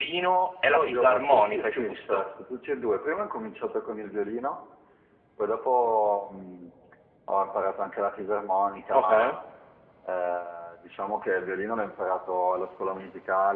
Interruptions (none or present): present